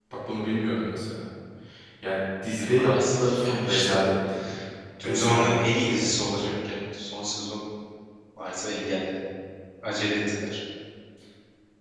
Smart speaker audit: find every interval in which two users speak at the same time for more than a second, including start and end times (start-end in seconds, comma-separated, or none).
2.6-4.0, 5.0-6.5